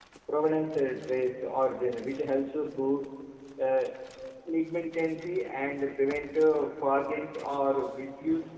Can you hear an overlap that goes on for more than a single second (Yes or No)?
No